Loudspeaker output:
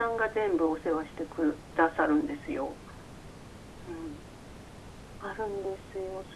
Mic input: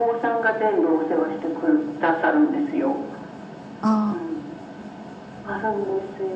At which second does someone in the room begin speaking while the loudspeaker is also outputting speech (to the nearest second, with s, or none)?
4 s